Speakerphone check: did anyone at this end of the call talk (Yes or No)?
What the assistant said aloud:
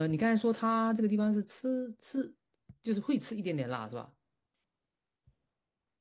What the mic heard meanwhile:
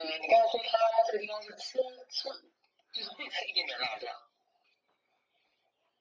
No